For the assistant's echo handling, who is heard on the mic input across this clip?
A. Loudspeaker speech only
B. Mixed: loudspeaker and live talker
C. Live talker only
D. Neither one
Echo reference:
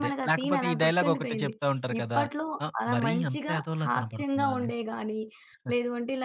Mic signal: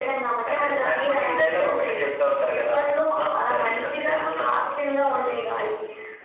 A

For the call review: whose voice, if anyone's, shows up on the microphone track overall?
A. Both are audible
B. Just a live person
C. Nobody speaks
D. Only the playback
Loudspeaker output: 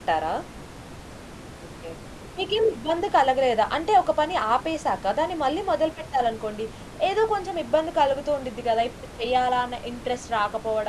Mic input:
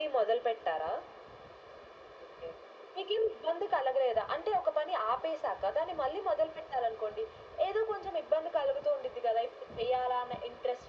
D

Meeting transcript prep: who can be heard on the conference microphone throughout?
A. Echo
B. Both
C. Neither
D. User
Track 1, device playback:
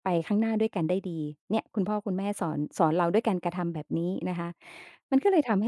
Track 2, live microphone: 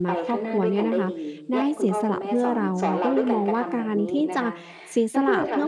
B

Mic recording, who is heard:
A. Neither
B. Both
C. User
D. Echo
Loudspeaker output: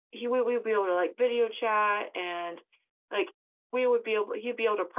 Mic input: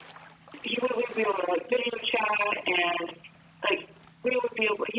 D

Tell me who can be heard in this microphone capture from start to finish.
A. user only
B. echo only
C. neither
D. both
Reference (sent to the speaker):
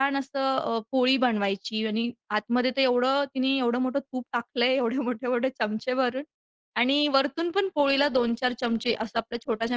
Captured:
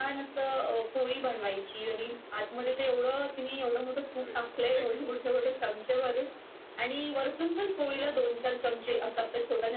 D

